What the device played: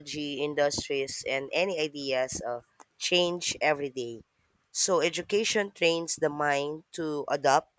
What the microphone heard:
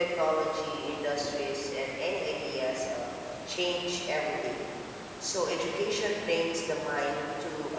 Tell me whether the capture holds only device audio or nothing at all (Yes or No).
Yes